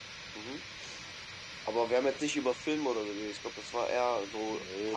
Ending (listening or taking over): taking over